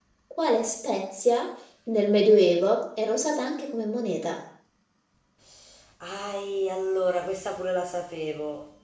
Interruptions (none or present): none